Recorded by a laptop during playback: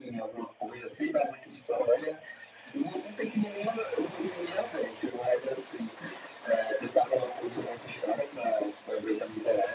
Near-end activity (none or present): none